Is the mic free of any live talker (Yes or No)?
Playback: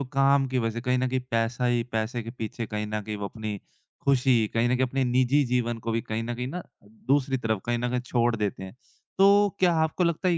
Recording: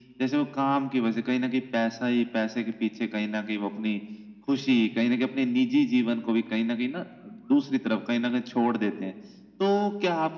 Yes